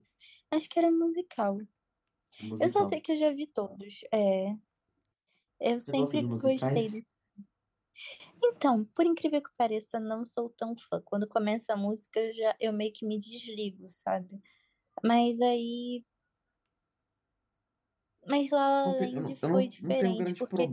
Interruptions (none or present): present